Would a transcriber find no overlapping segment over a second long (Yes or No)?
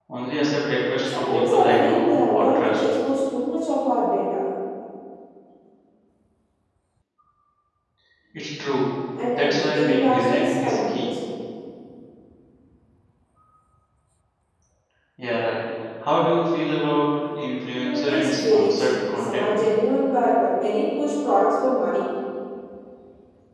No